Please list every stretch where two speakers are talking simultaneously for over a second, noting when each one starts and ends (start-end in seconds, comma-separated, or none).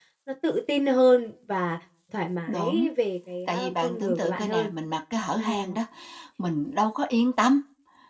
3.5-4.7